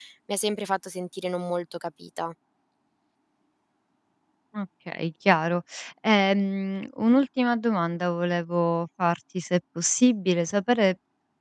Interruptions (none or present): none